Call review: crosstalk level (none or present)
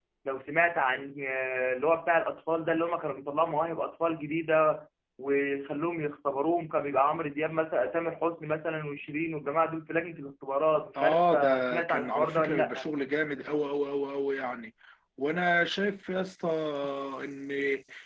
present